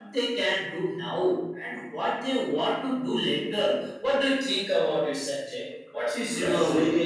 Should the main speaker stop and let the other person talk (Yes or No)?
Yes